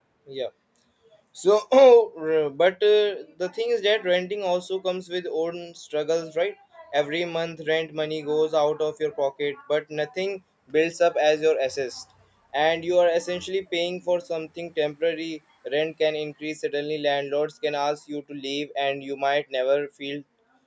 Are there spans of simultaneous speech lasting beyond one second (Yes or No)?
No